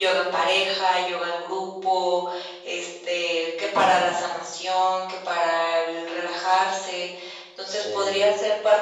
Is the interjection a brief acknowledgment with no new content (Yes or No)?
Yes